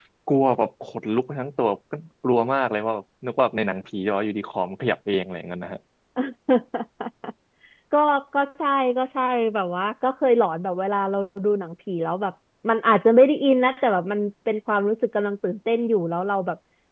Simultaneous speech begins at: none

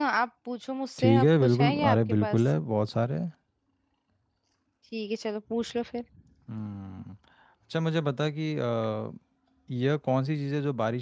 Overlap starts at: 1.0 s

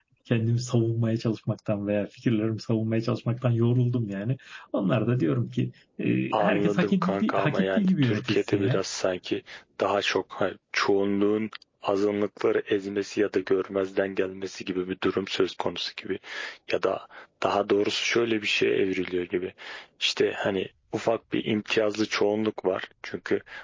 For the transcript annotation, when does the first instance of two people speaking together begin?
6.3 s

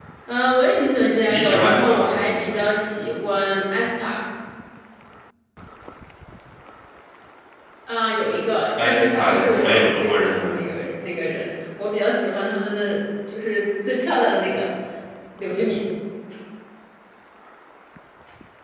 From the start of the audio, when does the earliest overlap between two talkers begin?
1.3 s

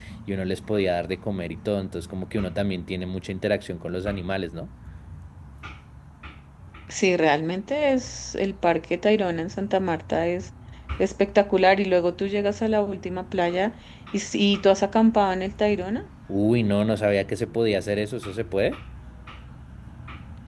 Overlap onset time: none

